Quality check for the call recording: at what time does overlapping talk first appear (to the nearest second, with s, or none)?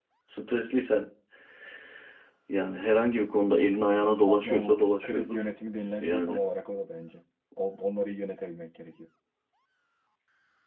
4 s